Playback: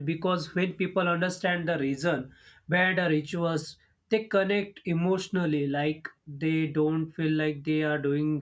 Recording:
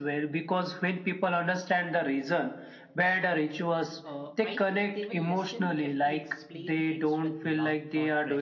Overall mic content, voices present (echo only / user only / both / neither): both